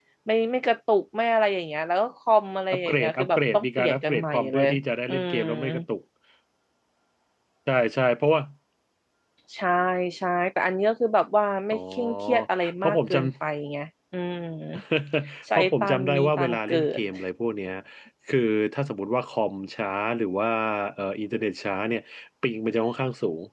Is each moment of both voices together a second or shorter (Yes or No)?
No